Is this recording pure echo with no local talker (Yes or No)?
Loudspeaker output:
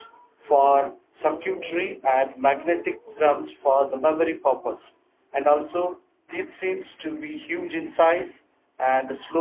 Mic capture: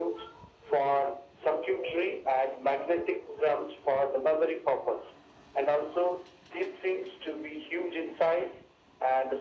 Yes